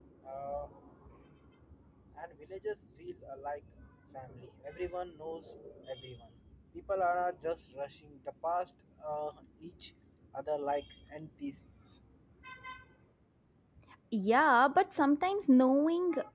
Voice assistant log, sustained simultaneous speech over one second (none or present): none